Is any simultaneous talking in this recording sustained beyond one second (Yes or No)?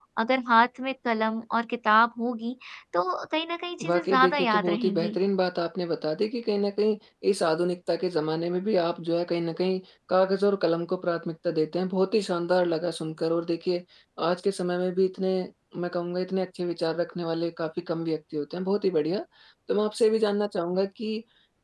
Yes